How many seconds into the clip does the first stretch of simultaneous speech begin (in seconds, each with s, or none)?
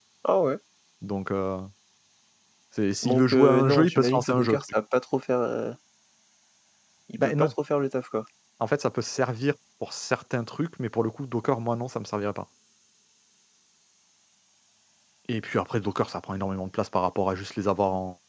3.0 s